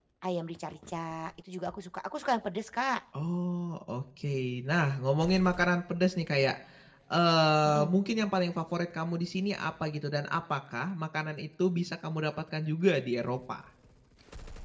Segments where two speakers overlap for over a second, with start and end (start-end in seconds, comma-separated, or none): none